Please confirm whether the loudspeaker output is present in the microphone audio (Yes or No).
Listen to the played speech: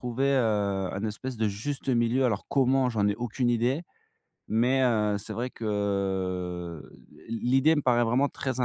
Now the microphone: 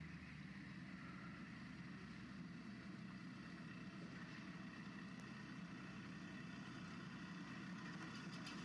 No